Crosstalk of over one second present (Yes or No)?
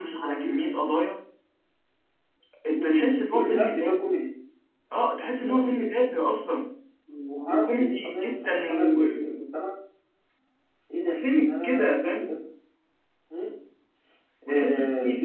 Yes